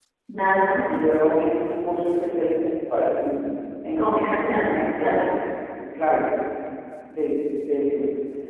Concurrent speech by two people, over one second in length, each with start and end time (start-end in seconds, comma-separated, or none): 4.0-5.4